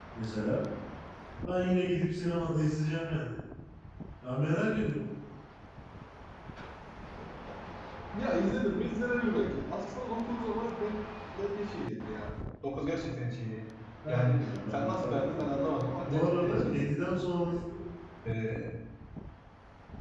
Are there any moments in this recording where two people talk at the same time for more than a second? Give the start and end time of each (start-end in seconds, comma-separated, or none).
14.1-15.5, 16.0-17.2